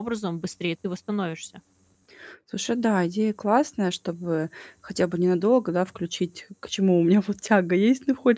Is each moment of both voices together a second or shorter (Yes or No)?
Yes